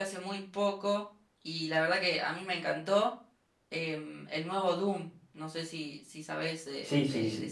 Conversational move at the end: taking over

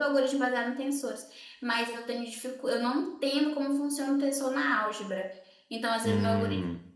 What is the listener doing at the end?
listening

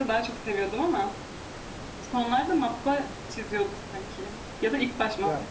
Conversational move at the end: taking over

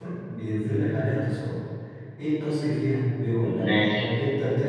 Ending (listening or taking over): listening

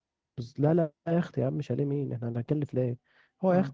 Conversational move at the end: listening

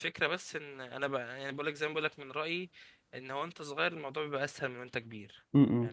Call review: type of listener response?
taking over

